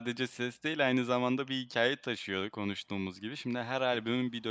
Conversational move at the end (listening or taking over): listening